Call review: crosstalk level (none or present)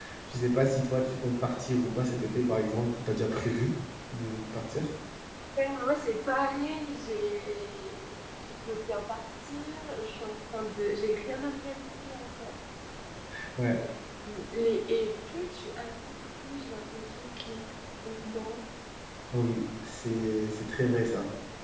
none